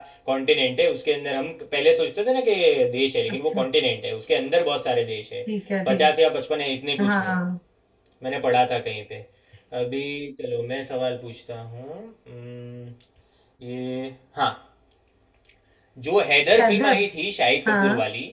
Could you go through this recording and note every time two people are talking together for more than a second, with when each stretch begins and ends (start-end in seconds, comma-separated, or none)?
none